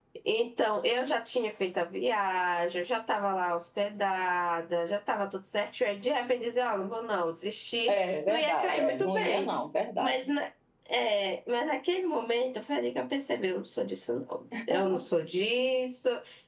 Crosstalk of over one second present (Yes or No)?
Yes